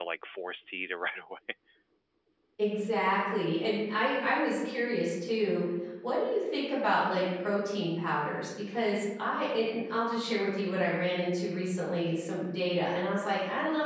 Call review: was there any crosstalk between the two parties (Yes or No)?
No